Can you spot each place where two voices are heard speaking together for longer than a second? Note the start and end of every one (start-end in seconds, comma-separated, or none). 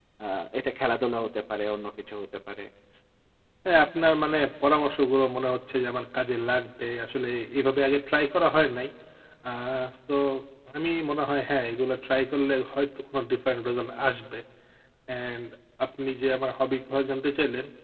none